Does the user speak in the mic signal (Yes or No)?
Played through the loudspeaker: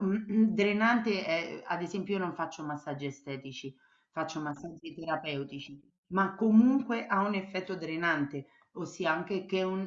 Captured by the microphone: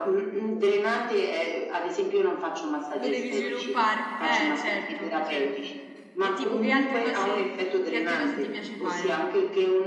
Yes